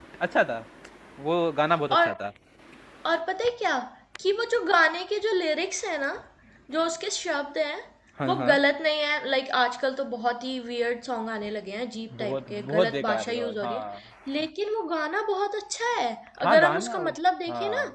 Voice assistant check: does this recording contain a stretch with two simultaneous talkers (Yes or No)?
Yes